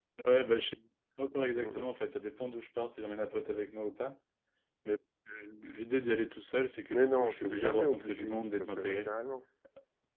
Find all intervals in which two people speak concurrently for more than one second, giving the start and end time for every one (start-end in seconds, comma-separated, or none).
6.9-9.1